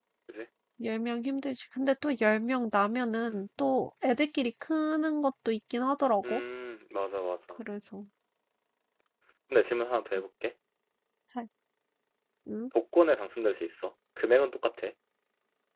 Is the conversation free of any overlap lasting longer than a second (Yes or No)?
Yes